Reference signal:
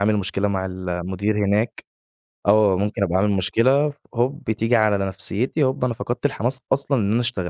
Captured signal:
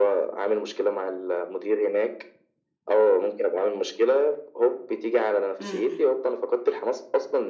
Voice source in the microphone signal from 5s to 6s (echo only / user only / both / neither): both